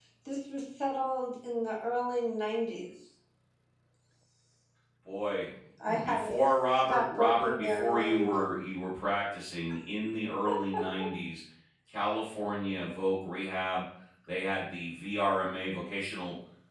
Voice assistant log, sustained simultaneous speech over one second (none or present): present